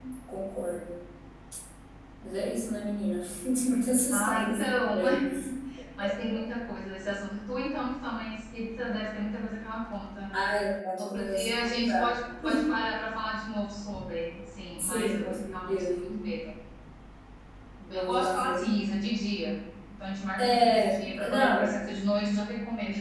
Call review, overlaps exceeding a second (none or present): present